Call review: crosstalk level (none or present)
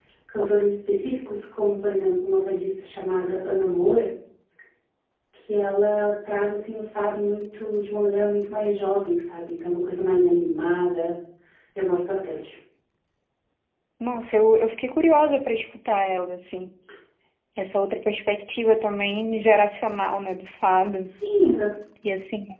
none